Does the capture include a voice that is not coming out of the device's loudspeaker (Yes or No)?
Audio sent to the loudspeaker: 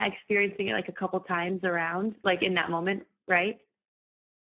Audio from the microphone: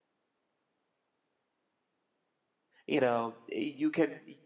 Yes